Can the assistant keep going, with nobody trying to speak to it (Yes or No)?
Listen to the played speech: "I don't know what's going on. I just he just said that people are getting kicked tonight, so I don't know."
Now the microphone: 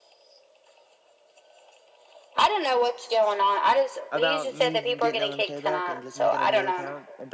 No